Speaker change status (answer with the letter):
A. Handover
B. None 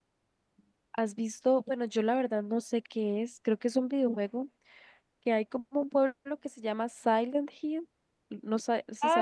A